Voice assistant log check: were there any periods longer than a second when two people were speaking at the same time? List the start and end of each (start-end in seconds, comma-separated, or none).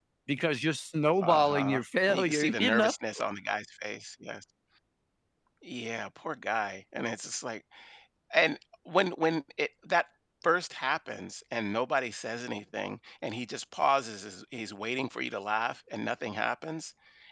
1.2-2.9